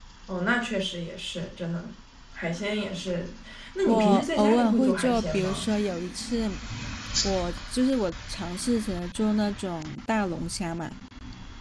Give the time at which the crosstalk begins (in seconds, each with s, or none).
3.9 s